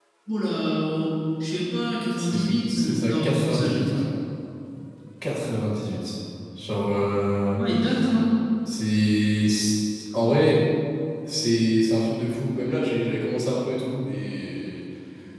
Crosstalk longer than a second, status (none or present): present